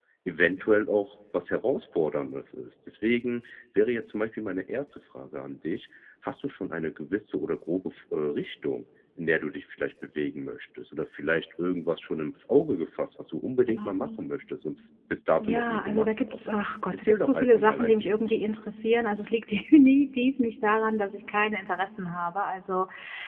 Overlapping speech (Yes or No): Yes